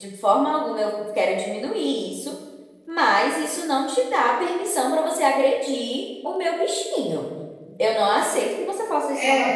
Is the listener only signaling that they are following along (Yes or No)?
No